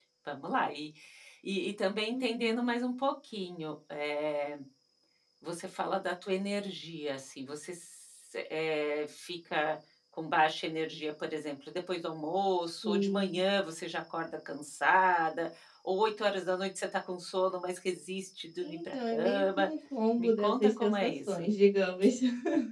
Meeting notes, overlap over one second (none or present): present